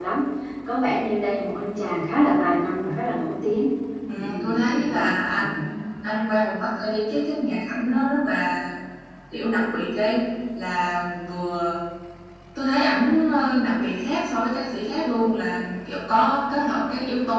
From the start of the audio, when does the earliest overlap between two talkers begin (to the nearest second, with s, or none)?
4 s